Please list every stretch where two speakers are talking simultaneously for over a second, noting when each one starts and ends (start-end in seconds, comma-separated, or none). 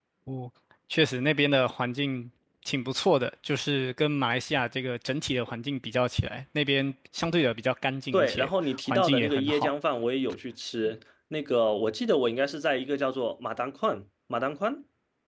8.1-9.7